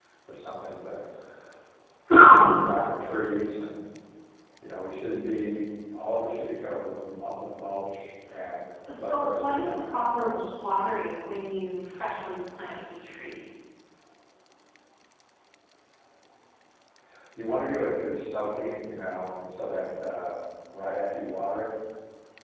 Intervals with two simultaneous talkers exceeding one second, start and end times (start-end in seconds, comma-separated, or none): 9.0-10.5